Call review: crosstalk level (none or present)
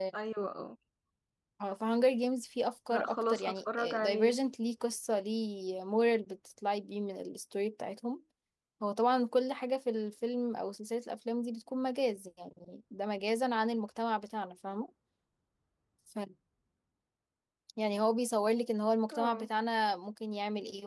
present